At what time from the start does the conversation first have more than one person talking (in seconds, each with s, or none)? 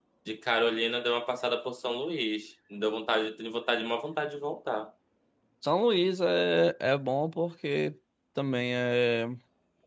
none